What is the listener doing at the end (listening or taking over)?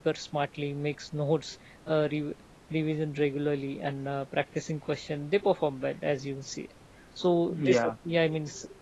listening